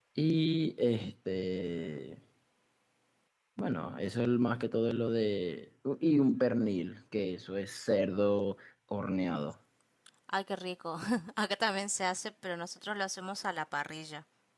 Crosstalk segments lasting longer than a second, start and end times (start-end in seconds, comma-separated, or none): none